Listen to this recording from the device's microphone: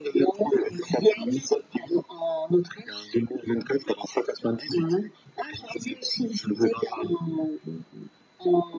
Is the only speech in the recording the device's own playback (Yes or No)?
Yes